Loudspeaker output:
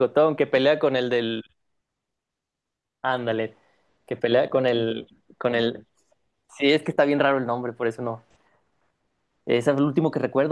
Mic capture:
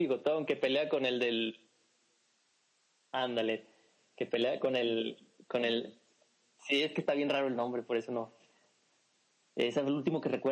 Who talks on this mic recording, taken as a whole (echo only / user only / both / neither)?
echo only